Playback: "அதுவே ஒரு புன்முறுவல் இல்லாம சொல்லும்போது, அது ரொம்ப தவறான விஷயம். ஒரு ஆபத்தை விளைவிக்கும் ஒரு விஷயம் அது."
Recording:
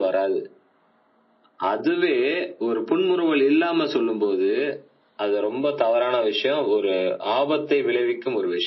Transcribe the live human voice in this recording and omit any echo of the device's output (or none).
none